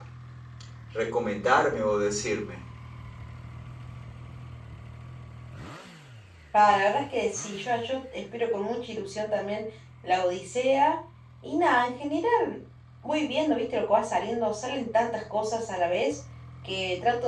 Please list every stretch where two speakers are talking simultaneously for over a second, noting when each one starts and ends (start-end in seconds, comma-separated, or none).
none